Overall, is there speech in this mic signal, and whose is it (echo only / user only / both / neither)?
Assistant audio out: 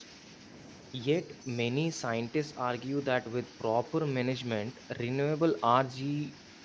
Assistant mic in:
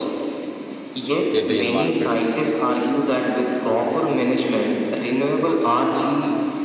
both